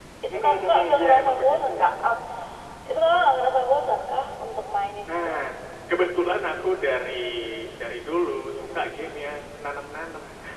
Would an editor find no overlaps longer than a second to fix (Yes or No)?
No